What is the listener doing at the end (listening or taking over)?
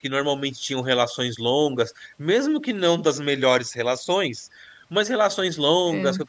listening